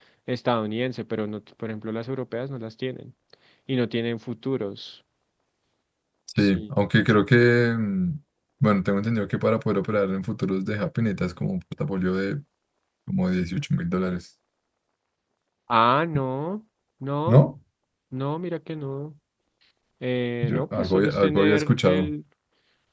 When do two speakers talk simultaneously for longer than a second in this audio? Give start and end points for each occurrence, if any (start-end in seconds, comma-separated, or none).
20.4-22.1